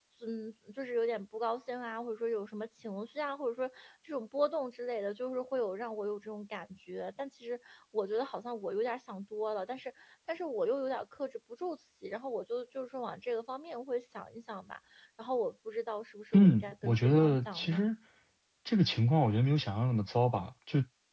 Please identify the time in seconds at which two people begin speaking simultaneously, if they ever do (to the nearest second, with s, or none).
16 s